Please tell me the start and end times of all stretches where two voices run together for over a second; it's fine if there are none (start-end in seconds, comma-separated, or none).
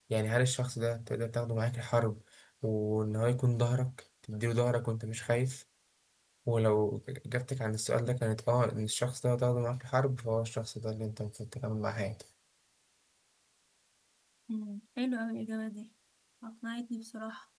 none